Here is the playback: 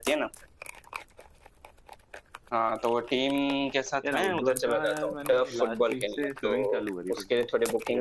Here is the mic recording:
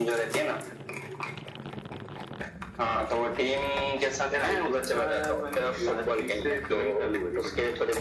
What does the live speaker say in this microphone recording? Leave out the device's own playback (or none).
none